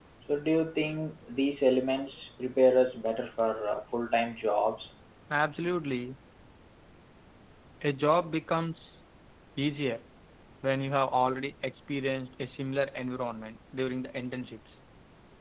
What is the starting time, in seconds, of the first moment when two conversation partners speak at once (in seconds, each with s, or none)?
none